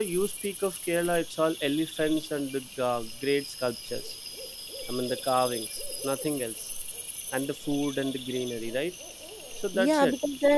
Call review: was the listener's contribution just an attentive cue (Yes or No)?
No